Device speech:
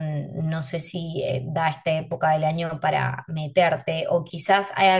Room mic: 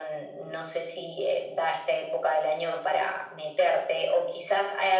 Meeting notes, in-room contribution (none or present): none